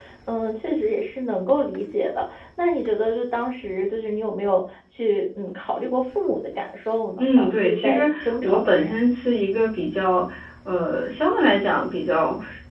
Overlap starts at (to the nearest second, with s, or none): 7 s